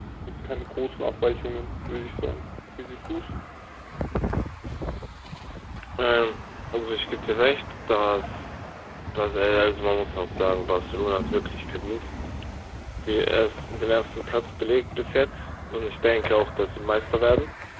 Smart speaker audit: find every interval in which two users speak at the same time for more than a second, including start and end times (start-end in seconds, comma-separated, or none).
none